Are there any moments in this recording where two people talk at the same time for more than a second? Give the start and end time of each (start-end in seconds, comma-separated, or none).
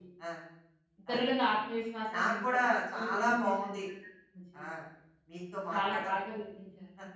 2.1-3.8